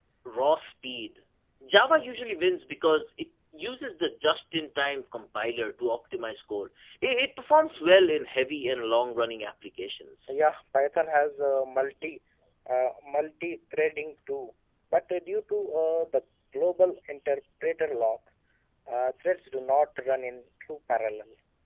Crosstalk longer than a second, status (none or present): none